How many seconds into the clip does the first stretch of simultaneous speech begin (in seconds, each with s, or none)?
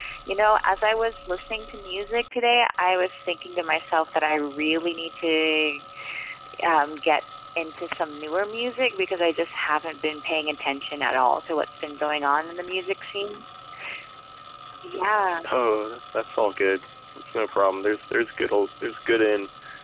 none